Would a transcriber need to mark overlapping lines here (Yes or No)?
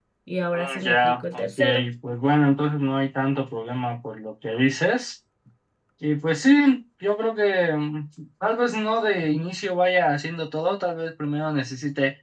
Yes